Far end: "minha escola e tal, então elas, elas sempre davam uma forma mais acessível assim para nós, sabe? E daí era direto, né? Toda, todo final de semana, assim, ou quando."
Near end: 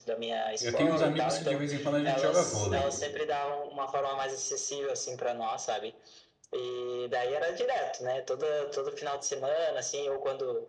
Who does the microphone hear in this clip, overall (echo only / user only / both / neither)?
both